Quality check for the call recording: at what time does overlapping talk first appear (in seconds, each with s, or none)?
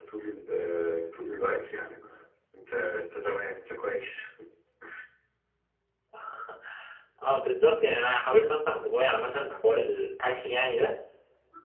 none